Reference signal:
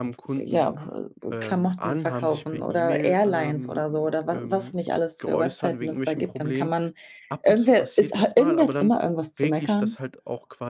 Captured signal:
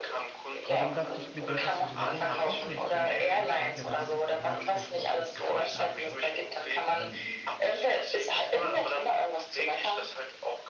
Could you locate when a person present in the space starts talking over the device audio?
1 s

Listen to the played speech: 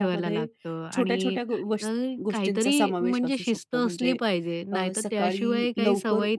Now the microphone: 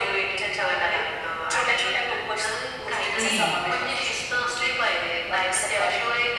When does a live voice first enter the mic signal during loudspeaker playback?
3 s

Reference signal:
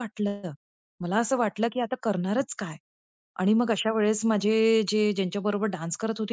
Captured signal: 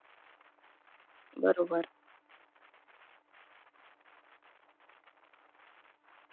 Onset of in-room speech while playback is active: 1 s

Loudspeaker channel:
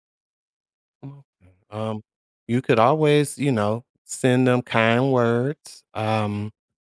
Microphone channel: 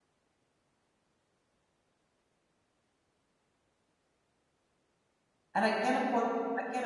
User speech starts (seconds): 6 s

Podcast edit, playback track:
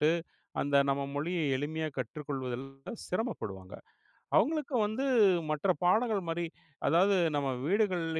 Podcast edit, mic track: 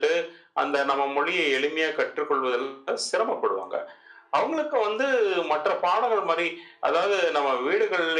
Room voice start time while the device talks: none

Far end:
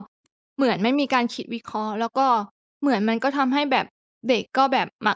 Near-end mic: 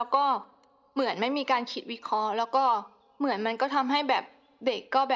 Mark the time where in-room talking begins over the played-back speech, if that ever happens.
none

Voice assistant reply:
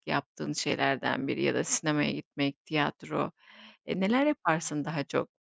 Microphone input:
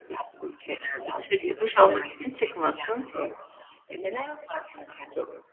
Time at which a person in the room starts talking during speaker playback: 1 s

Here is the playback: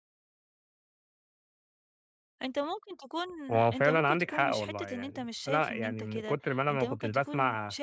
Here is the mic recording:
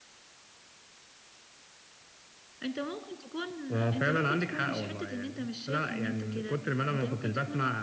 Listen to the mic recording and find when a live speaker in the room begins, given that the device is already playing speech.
none

